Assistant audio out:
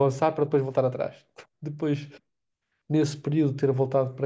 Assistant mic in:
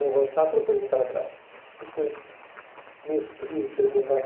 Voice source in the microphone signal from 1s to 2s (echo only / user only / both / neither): echo only